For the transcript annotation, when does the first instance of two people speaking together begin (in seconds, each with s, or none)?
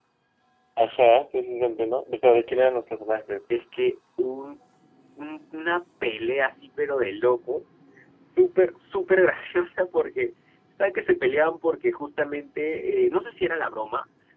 none